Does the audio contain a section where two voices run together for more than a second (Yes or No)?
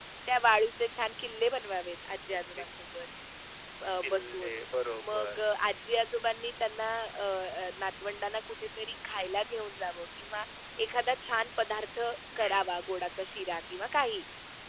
No